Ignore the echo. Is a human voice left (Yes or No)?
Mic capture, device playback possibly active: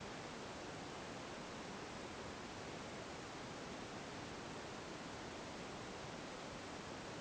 No